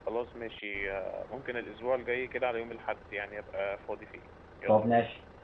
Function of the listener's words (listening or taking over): taking over